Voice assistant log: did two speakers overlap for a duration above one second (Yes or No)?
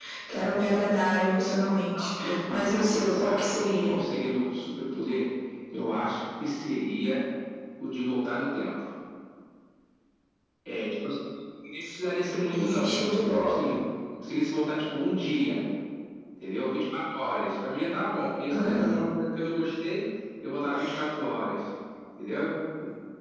Yes